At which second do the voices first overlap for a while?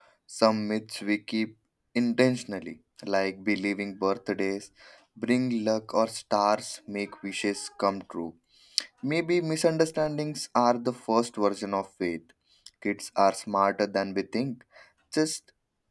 none

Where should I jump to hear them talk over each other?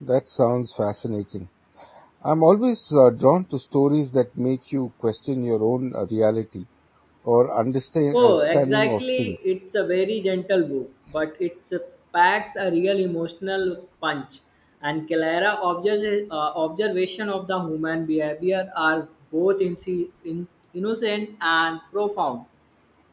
8.1 s

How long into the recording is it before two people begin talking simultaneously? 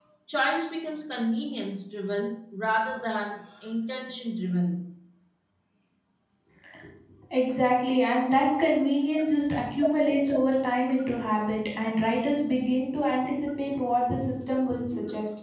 none

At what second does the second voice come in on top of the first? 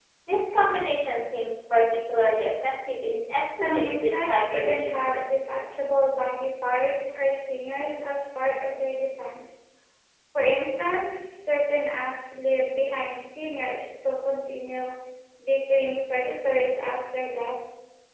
3.6 s

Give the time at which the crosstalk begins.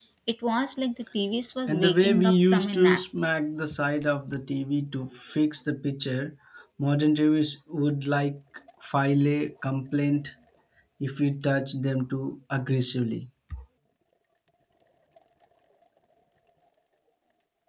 1.7 s

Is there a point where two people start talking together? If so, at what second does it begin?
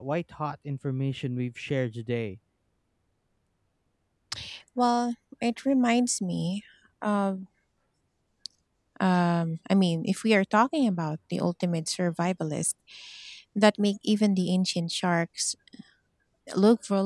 none

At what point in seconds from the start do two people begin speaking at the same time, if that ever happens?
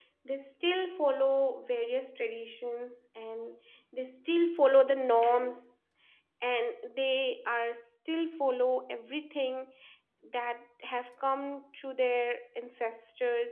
none

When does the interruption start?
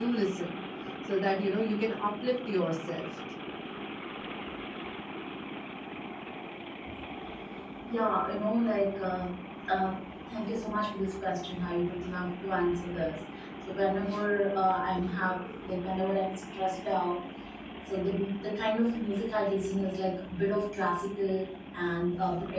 none

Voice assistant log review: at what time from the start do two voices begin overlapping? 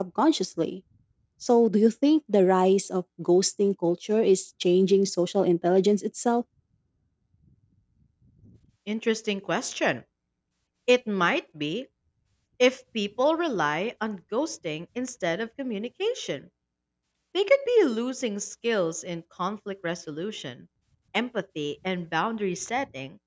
none

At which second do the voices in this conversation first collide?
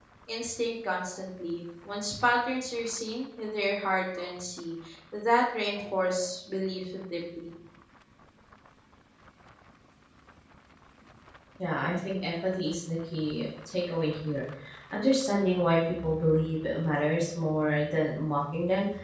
none

